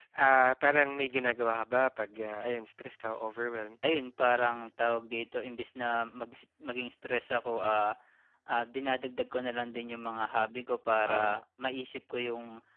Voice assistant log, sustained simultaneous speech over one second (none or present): none